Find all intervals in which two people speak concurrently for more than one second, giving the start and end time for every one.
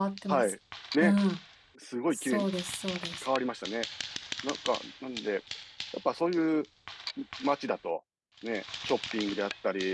none

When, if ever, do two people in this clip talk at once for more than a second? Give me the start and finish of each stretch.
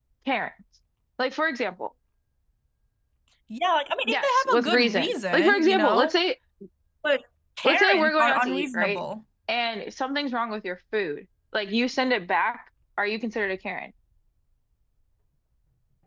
4.0-6.1, 7.6-9.0

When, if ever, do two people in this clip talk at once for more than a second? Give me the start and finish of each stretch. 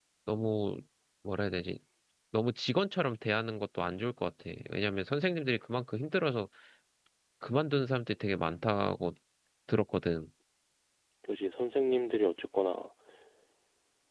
none

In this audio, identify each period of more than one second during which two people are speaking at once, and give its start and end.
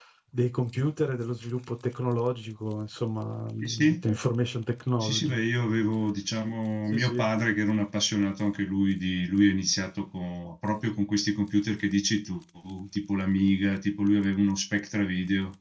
none

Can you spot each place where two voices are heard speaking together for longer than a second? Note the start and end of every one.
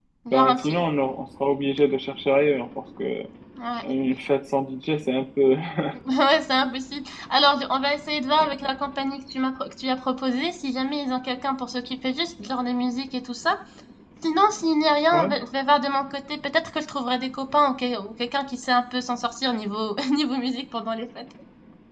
none

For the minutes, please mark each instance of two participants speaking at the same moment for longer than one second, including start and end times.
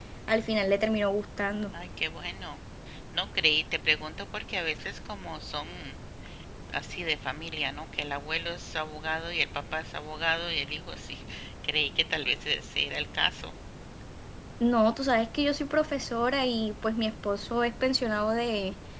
none

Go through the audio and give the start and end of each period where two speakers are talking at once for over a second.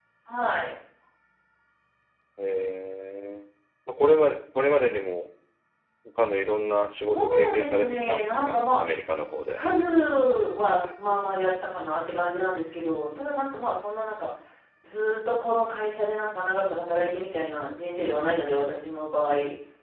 7.1-8.8

